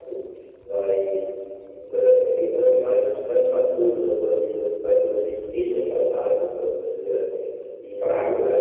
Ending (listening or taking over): taking over